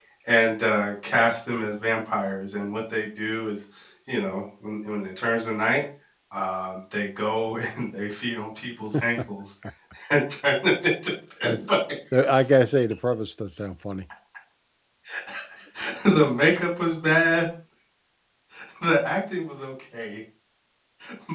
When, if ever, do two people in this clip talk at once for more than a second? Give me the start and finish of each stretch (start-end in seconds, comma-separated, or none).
none